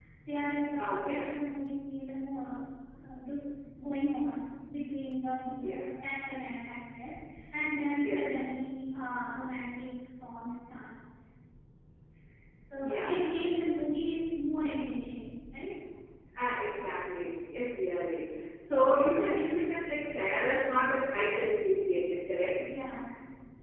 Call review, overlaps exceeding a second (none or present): none